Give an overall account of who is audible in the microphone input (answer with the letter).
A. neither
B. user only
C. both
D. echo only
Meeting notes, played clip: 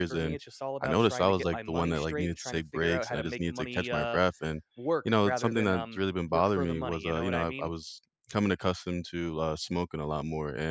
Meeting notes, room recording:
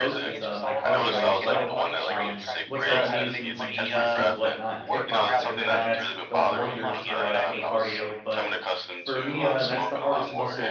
C